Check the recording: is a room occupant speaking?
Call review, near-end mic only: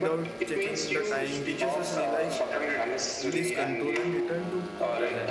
Yes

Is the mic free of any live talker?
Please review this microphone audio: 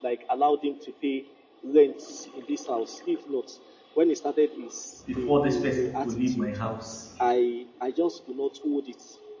No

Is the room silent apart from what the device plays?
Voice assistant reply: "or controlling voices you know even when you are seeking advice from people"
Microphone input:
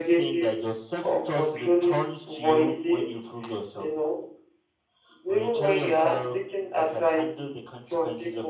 No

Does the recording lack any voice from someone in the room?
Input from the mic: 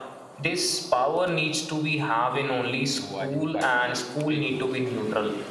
No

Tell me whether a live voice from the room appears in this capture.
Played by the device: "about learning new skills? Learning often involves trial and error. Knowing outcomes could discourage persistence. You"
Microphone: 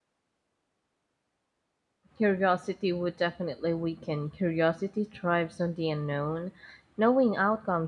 Yes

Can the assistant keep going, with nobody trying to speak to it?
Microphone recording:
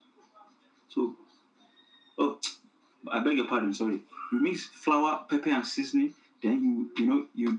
Yes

